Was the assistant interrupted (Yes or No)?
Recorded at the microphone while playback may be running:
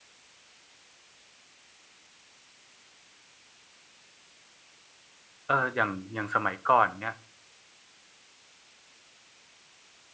Yes